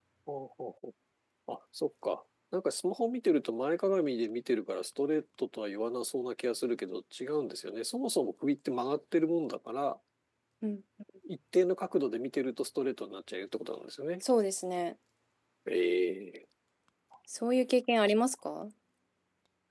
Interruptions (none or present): none